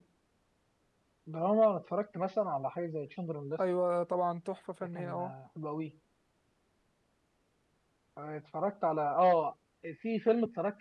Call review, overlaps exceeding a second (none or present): none